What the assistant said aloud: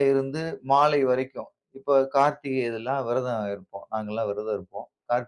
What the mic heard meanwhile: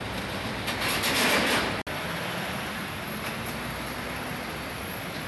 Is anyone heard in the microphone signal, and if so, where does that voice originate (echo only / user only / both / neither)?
neither